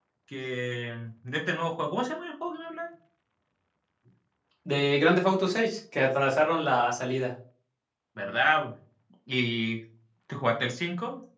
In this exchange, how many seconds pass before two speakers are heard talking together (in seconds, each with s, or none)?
none